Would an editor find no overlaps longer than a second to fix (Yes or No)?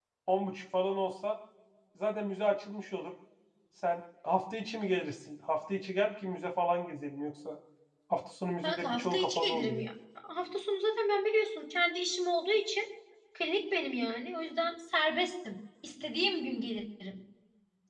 No